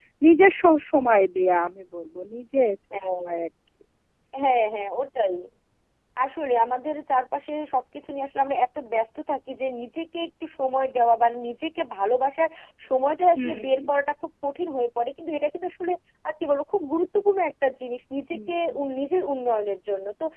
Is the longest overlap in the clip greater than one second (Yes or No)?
No